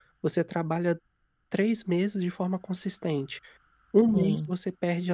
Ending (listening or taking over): listening